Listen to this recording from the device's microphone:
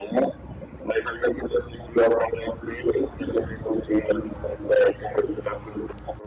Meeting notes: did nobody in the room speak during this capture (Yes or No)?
Yes